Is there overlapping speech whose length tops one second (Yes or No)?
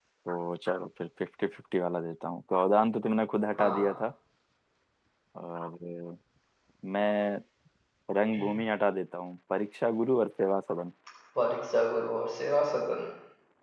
No